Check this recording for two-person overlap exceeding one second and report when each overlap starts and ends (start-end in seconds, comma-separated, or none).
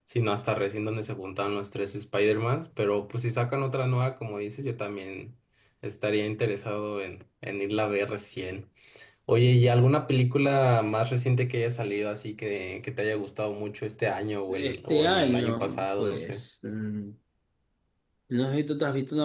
14.5-16.4